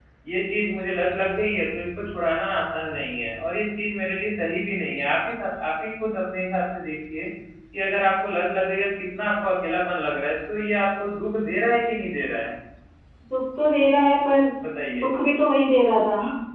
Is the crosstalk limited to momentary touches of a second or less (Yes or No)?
Yes